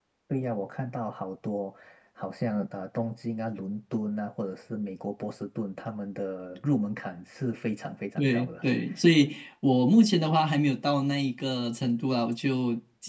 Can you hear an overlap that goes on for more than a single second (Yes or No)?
No